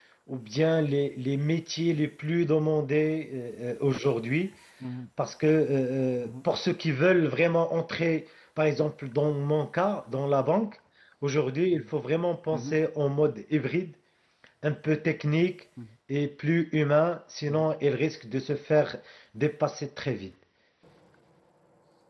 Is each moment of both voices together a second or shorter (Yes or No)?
Yes